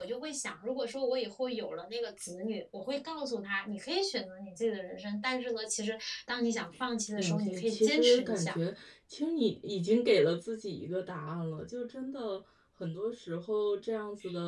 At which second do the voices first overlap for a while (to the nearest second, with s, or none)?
7 s